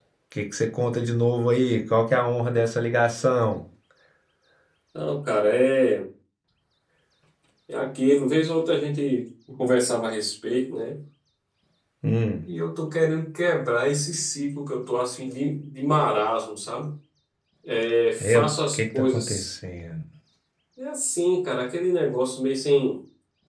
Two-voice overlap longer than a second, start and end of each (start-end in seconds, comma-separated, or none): 18.2-19.6